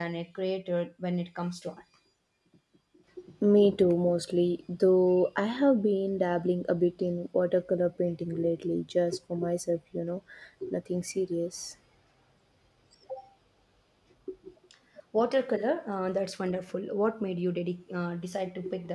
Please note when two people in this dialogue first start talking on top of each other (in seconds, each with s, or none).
none